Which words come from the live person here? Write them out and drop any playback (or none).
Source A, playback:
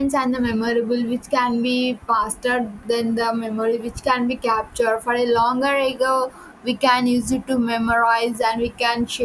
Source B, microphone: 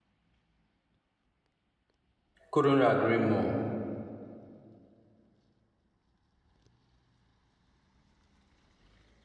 Couldn't agree more.